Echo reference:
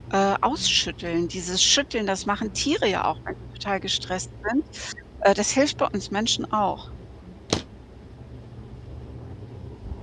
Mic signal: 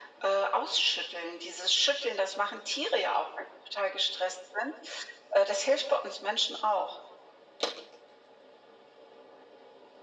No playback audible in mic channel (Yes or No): No